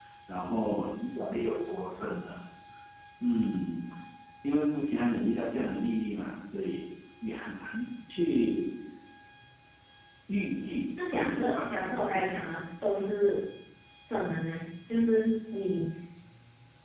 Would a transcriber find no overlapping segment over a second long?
No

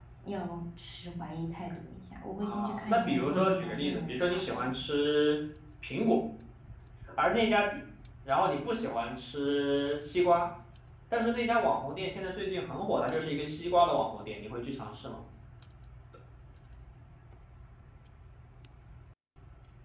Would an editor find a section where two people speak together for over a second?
Yes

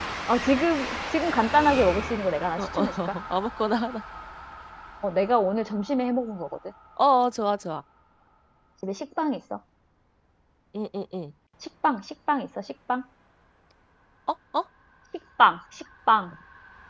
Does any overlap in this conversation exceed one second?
No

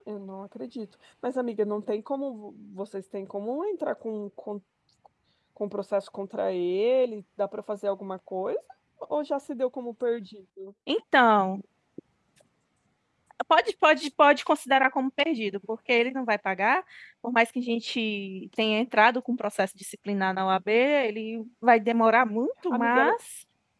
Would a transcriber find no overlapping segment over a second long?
Yes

